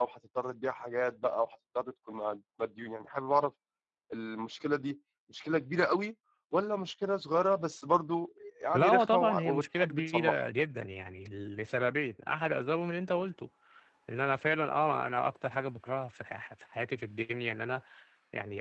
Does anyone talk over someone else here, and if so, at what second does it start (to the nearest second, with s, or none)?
9 s